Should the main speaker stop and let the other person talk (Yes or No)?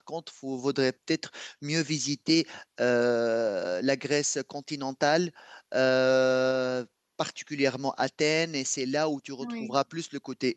No